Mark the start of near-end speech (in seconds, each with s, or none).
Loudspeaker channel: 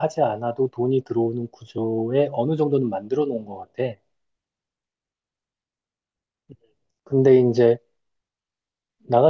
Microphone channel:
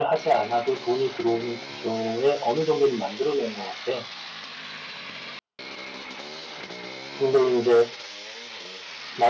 none